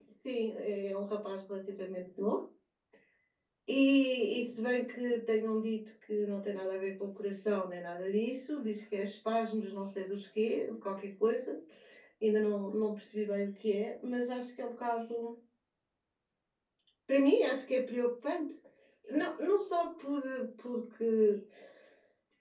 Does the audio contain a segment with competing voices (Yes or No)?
No